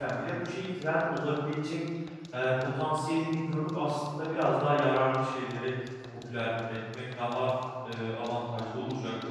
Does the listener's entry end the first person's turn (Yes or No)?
Yes